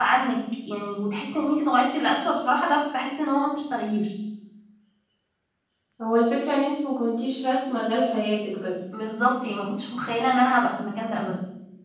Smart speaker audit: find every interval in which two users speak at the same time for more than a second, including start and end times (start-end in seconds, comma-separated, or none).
none